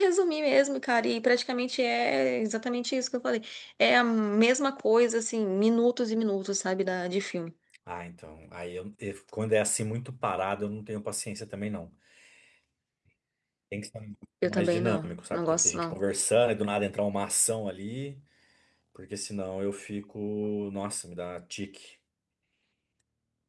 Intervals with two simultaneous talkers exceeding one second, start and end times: 14.4-15.9

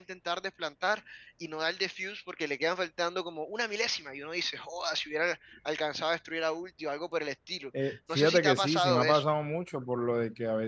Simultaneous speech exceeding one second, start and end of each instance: 7.8-9.2

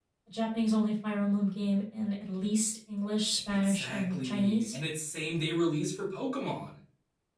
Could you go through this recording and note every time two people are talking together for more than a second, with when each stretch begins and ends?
3.5-4.8

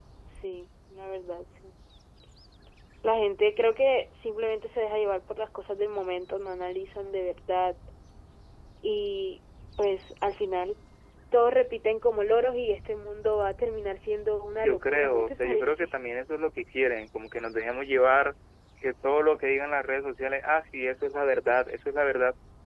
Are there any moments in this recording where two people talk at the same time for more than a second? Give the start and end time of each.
14.5-15.9

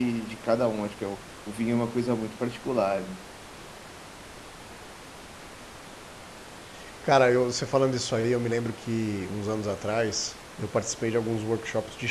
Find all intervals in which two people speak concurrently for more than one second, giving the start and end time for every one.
none

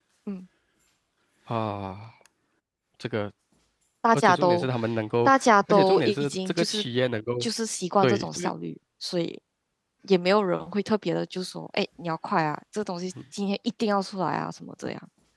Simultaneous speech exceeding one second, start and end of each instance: 5.2-6.8

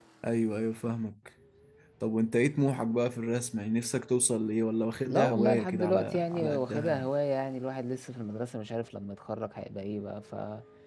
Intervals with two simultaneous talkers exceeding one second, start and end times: 5.1-7.0

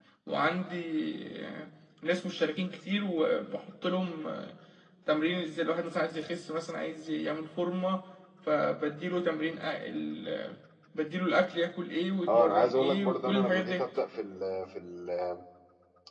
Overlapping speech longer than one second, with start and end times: 12.3-13.8

